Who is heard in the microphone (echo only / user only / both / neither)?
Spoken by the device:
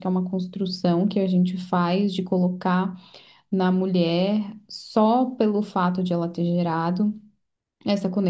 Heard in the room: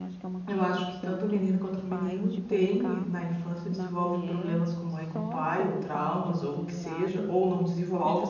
both